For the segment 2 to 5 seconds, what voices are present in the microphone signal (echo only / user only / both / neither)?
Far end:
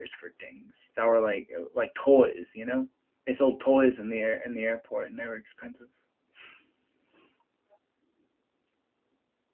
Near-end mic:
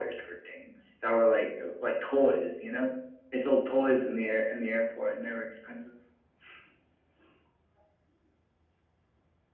echo only